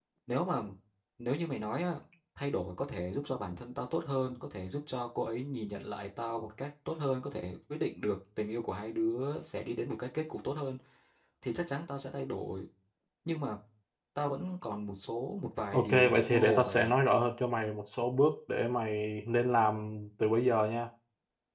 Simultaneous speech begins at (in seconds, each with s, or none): 15.7 s